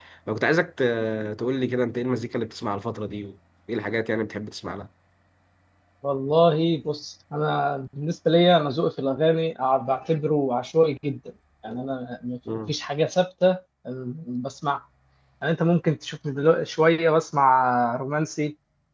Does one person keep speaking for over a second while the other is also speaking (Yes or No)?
No